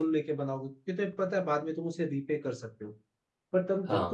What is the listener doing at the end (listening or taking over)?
listening